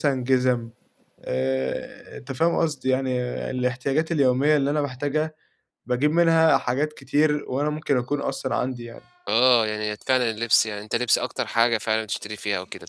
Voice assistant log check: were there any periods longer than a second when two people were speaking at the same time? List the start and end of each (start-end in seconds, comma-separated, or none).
none